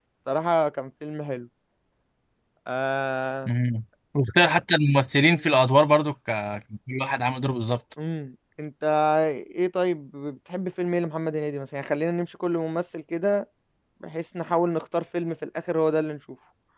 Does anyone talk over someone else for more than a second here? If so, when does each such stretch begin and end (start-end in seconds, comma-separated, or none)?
none